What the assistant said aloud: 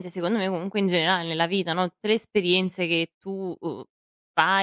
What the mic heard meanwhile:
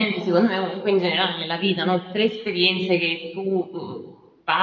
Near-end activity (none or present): none